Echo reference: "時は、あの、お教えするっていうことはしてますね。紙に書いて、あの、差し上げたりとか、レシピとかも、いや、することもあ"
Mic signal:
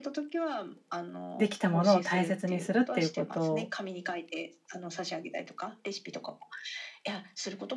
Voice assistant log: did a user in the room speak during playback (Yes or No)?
Yes